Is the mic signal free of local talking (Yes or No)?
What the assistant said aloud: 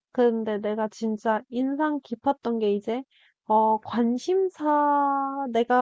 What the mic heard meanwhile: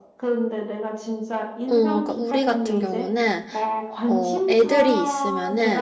No